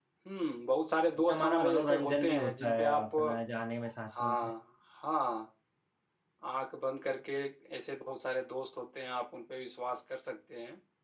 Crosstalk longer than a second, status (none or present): present